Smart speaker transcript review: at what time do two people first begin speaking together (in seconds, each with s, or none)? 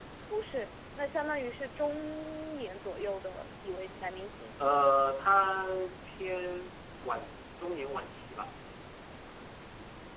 none